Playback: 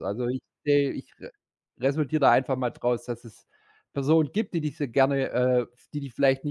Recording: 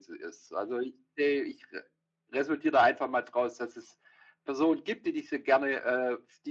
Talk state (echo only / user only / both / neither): echo only